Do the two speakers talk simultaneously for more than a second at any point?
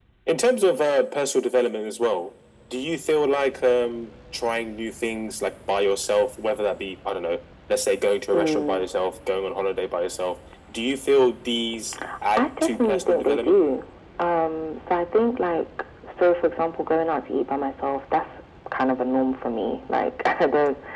Yes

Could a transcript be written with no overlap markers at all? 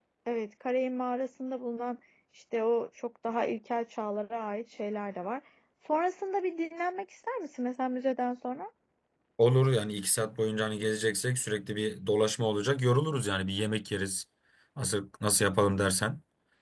Yes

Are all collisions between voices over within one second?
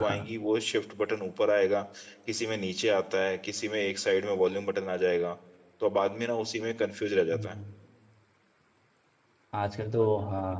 Yes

